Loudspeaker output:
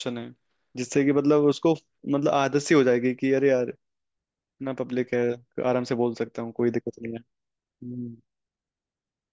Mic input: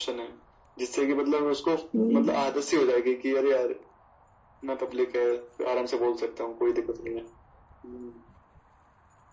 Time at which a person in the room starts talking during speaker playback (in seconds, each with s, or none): 1.9 s